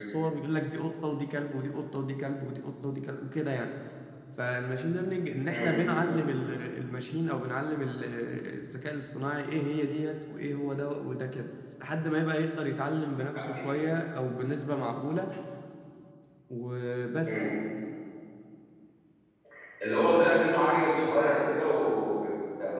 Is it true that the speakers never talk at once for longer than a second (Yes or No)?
Yes